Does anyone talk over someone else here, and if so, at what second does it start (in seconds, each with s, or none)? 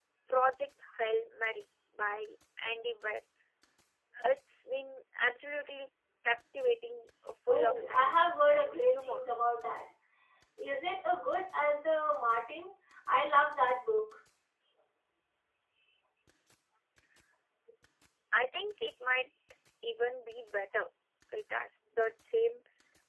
7.5 s